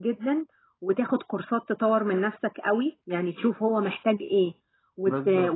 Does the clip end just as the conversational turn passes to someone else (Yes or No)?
No